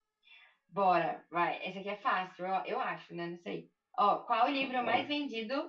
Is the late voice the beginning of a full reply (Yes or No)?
No